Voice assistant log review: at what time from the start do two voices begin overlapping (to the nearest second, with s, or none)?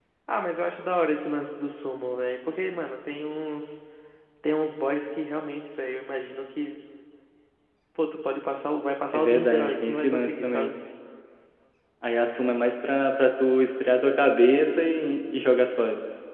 9 s